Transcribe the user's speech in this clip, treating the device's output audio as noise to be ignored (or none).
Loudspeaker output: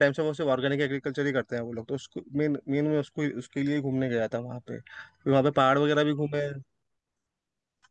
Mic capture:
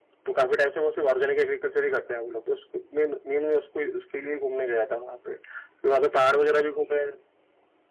हम्म।